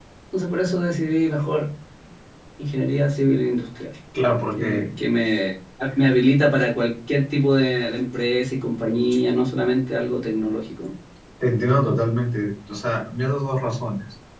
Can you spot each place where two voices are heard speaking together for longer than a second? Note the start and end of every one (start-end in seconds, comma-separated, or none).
none